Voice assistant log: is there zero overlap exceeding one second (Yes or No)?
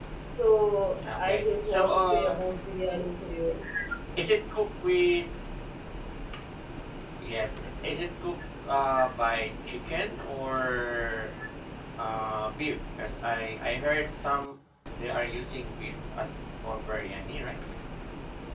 No